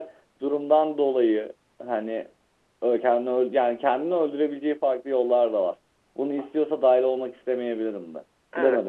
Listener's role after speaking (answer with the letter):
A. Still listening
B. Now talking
B